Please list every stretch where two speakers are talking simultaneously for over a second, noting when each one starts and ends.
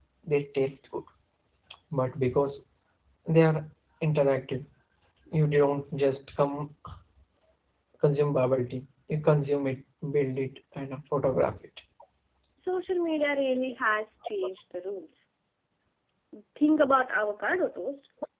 none

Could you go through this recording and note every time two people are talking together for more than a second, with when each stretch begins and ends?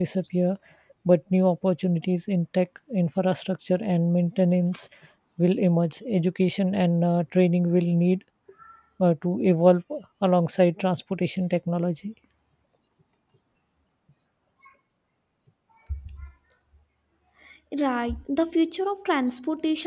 none

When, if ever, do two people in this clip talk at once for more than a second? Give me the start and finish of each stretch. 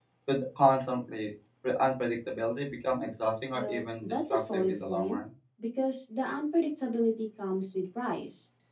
3.5-5.2

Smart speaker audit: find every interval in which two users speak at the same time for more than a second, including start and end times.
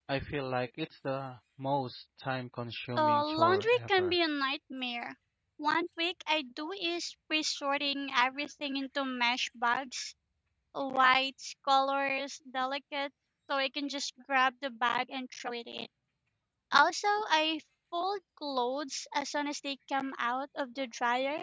3.0-4.2

